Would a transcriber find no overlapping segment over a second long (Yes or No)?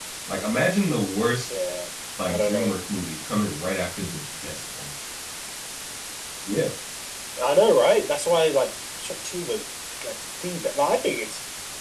Yes